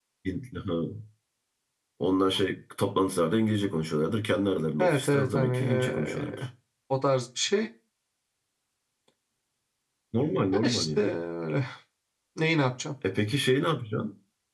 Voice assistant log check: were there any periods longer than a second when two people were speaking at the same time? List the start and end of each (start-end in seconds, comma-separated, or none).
4.8-6.4